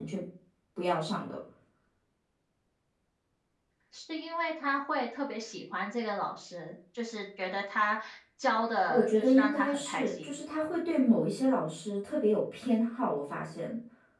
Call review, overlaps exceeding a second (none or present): present